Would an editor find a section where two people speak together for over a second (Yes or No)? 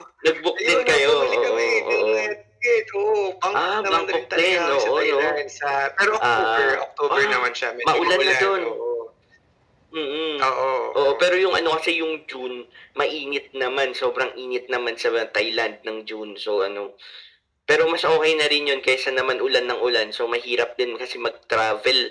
Yes